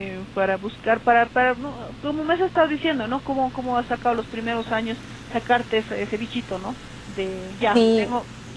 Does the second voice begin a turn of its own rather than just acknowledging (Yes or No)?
No